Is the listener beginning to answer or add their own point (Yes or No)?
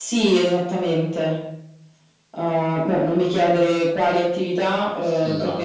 No